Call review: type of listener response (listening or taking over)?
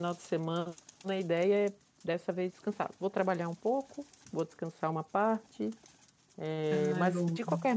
listening